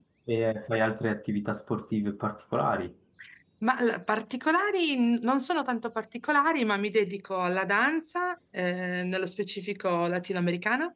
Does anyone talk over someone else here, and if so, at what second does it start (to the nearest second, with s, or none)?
none